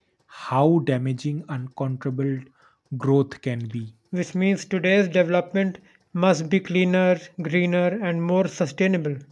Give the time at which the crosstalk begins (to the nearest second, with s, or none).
none